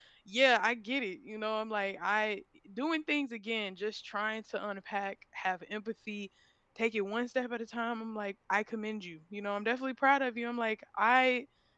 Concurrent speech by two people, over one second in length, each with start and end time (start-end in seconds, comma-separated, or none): none